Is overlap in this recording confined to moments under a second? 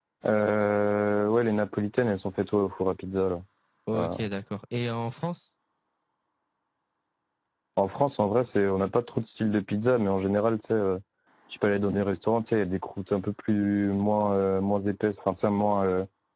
Yes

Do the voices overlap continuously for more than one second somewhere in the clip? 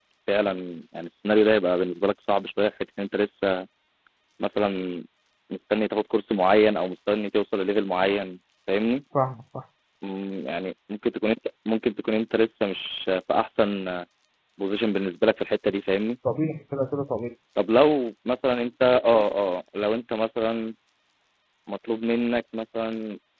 No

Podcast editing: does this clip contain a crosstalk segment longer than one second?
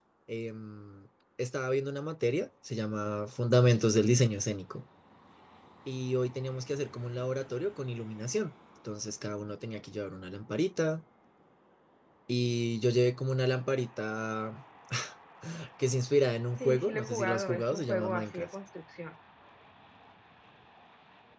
Yes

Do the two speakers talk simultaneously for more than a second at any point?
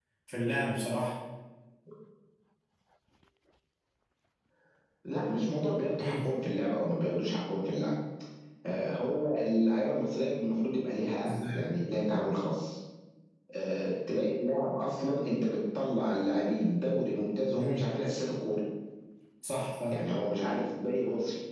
No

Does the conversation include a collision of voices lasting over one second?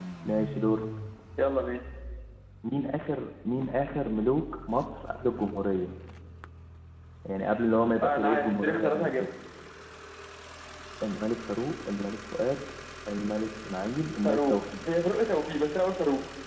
Yes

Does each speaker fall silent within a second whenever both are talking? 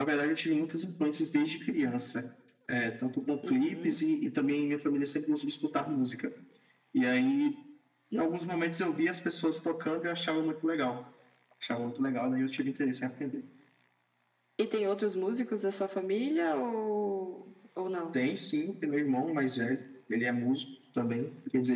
Yes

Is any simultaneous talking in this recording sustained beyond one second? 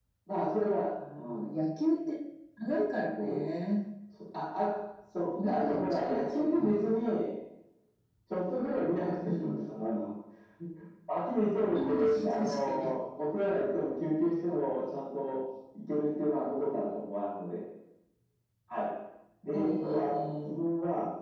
Yes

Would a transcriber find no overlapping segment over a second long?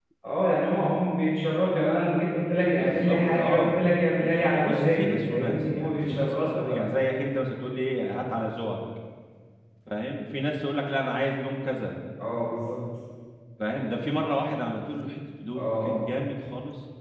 No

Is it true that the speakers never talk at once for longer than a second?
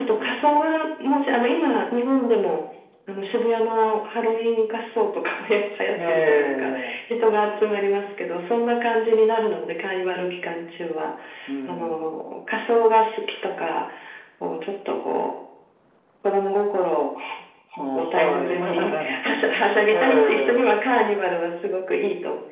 No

